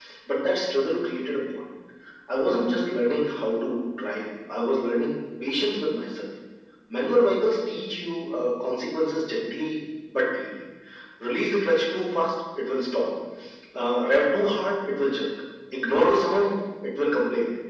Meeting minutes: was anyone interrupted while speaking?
No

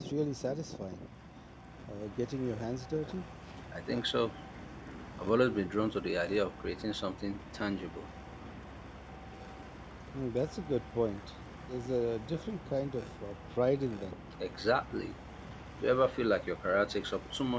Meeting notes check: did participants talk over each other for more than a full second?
No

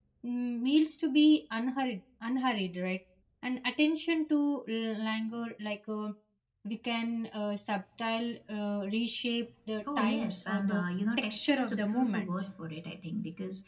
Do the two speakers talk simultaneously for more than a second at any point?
Yes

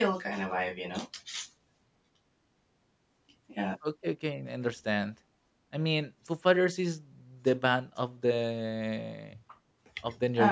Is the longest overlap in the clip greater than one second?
No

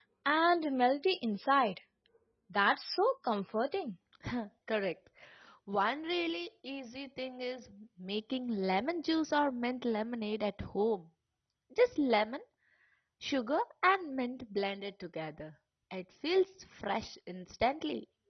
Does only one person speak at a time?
Yes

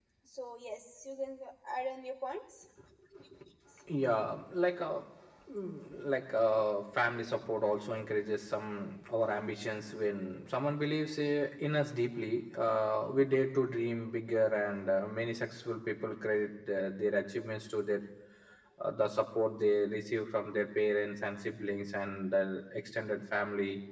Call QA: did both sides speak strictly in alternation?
Yes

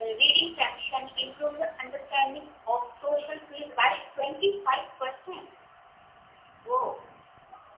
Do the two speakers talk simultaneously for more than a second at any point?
No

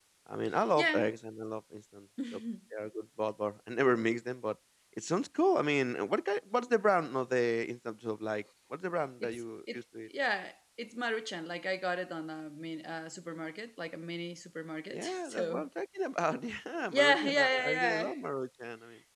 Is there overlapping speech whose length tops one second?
Yes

